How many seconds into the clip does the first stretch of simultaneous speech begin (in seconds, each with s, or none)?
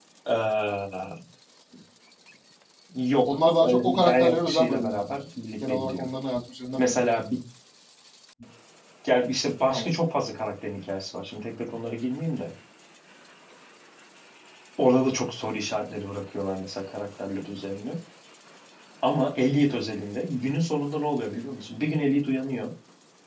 3.3 s